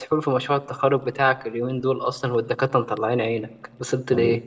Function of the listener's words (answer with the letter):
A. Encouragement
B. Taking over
B